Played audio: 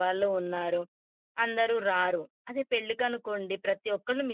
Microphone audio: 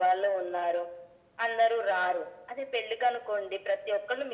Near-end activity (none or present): none